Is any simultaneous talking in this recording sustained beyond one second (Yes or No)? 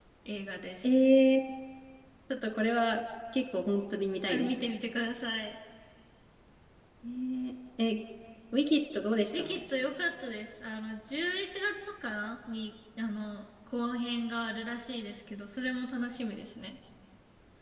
No